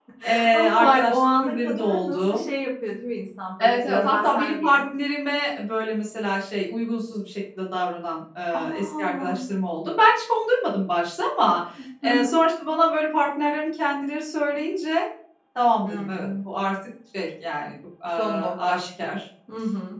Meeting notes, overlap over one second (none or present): present